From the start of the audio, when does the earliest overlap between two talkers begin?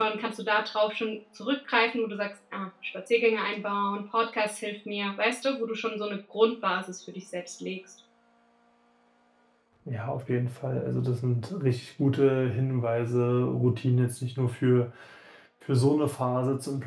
none

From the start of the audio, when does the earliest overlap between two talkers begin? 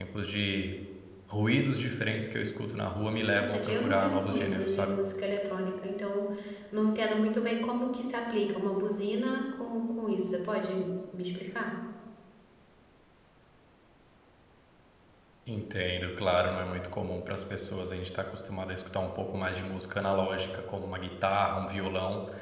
3 s

